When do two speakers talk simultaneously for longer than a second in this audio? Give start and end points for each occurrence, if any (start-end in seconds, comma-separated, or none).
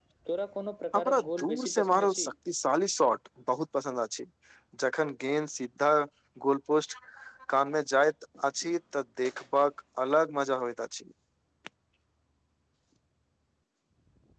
0.9-2.3